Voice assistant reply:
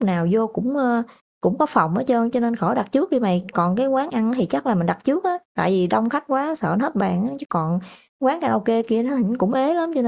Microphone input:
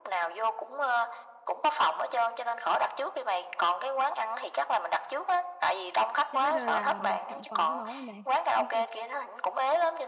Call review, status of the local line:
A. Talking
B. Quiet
A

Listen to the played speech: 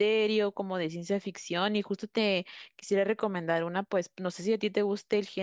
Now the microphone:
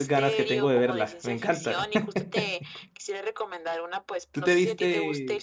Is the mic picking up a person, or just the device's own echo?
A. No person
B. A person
B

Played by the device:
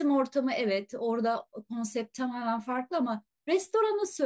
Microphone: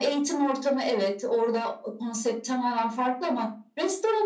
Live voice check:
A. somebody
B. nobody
B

